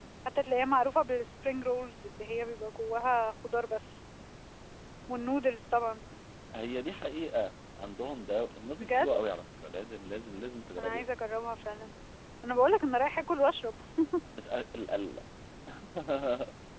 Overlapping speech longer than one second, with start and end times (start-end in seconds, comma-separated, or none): none